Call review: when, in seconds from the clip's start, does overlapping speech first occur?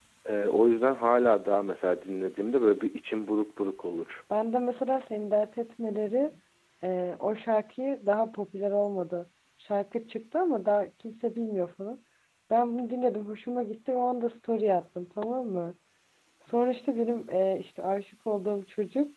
none

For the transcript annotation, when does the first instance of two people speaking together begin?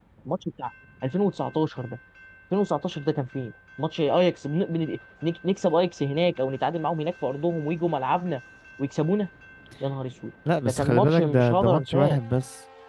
10.6 s

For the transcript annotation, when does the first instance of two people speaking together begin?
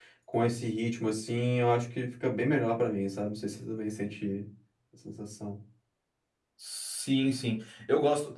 none

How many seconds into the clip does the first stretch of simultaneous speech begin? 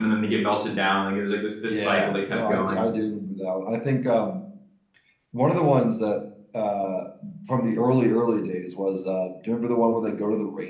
1.6 s

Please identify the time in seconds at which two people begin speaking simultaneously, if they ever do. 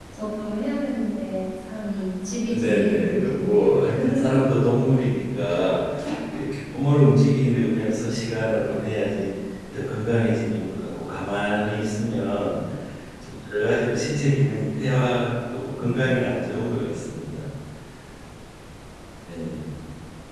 2.5 s

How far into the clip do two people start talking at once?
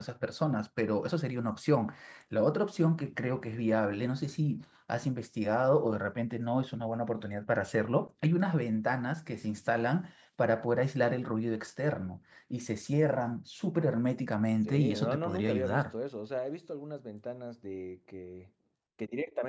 14.6 s

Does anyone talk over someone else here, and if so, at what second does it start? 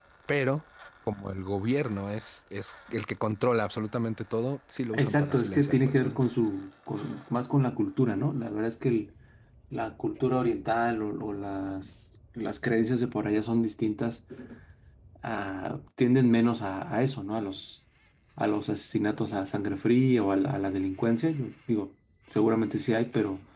4.9 s

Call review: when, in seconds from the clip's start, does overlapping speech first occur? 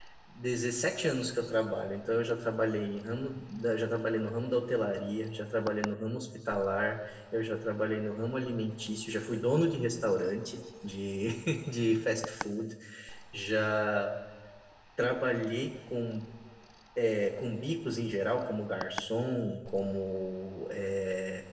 none

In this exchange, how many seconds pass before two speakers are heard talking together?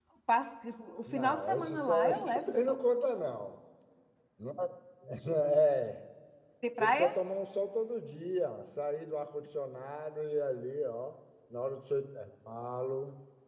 1.1 s

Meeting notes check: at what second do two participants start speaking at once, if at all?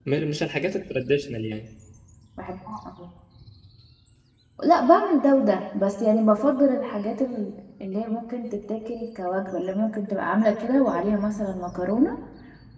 none

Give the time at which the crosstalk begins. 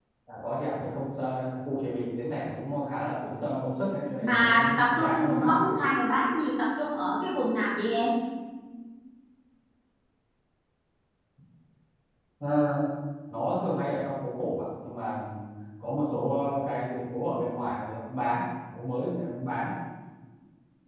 4.2 s

